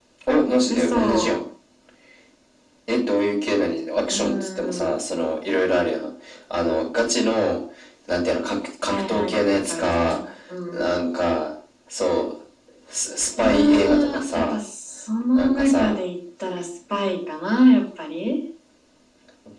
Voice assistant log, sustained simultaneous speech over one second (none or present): present